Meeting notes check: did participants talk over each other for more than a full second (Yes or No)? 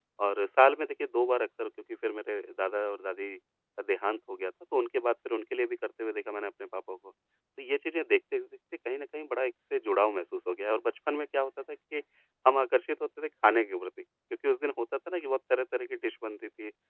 No